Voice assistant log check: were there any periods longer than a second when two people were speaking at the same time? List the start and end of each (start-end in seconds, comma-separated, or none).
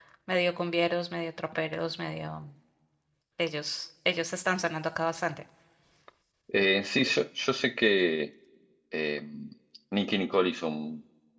none